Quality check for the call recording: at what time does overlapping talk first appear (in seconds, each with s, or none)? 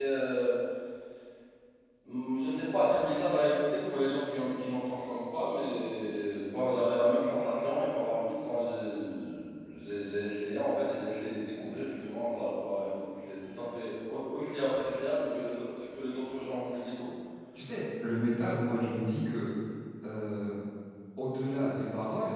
none